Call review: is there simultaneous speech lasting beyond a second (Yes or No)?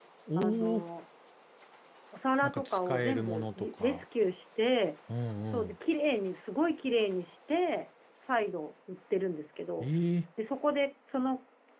Yes